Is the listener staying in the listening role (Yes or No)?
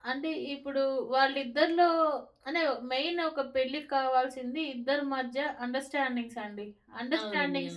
Yes